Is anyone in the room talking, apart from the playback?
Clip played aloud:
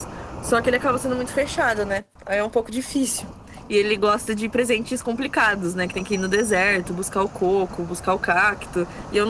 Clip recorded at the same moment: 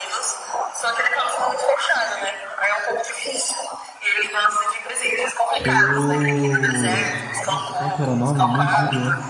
Yes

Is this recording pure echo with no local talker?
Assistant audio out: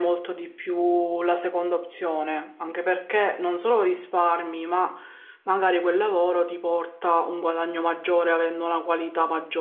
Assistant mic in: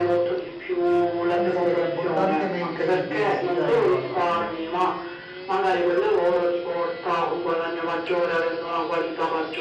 No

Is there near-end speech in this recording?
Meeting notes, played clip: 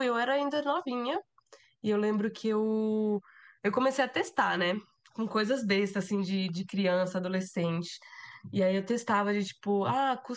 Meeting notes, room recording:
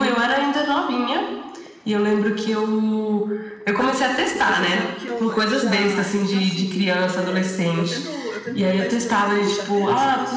Yes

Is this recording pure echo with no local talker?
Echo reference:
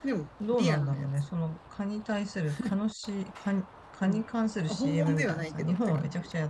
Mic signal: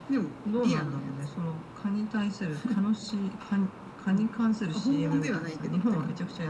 Yes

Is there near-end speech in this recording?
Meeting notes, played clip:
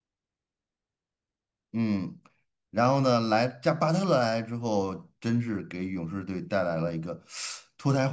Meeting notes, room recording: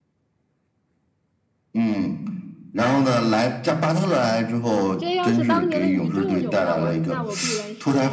Yes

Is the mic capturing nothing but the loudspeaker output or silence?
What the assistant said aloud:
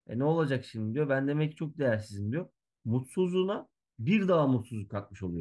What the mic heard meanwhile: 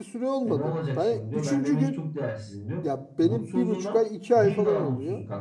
No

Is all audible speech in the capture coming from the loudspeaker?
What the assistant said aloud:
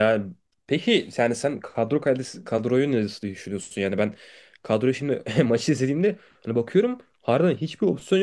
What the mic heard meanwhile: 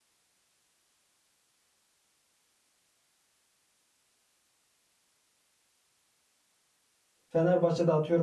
No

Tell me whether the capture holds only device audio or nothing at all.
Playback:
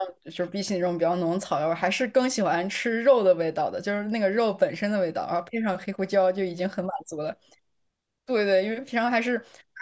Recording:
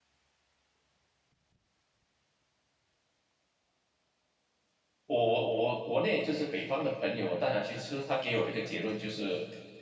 No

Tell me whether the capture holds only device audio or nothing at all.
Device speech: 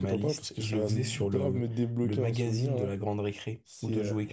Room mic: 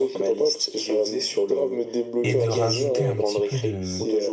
No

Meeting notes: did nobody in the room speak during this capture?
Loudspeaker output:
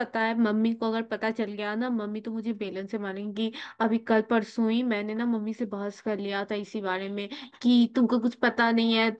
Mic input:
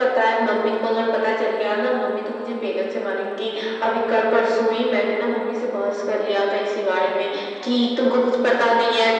Yes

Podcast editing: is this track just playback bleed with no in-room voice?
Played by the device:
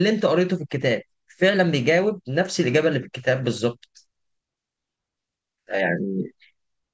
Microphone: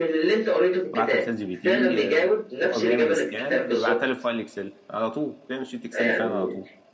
No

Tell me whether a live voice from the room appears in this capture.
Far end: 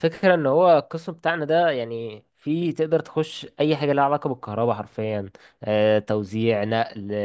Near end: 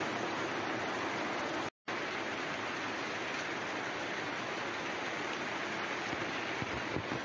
No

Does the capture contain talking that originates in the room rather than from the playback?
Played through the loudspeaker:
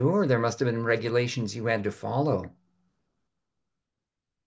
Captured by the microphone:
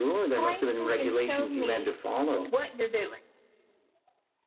Yes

